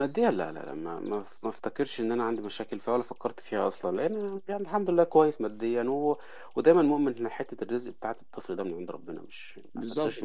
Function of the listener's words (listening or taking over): taking over